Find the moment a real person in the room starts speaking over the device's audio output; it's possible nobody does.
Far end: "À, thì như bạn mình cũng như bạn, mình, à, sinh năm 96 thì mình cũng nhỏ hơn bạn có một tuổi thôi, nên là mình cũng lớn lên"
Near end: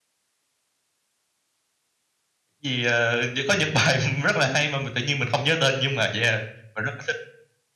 2.6 s

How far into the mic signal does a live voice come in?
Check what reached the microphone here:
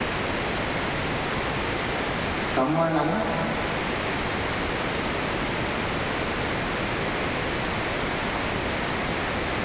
2.6 s

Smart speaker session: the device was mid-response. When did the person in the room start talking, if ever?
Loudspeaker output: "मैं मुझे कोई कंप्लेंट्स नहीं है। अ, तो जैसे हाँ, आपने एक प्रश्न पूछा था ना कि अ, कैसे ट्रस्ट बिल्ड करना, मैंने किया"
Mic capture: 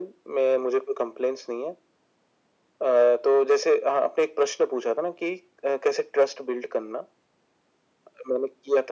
none

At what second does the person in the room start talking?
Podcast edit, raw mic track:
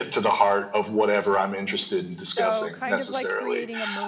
2.2 s

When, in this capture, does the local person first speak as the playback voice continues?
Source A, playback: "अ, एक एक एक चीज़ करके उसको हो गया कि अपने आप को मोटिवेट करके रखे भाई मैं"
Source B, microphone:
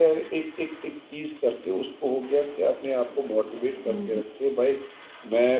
3.9 s

